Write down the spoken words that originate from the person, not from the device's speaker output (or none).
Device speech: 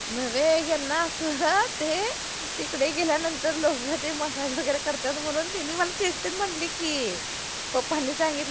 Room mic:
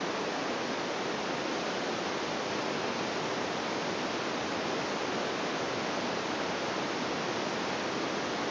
none